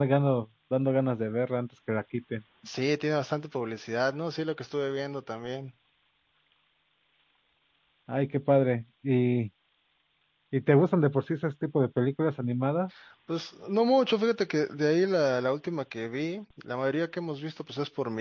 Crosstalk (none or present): none